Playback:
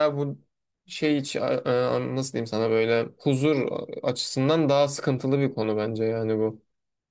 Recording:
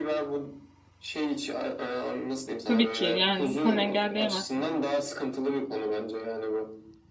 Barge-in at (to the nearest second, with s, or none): 3 s